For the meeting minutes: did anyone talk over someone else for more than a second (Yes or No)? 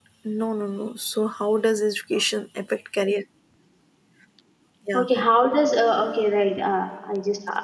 No